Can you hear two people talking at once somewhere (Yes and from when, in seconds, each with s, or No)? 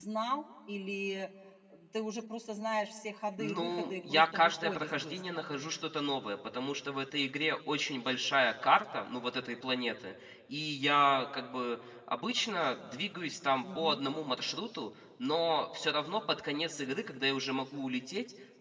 Yes, from 3.4 s